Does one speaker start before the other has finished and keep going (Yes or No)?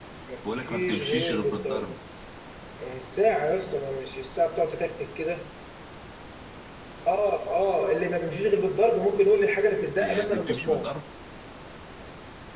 Yes